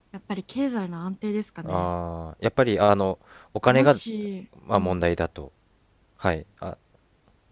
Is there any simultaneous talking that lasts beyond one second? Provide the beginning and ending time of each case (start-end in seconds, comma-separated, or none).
none